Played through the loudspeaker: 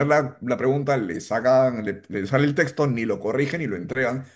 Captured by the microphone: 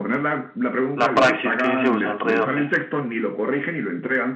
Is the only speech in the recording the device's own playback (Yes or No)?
No